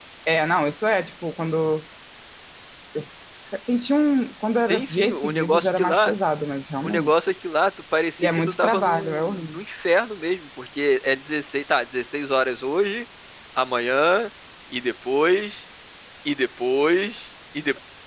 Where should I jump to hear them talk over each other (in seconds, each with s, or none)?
4.7 s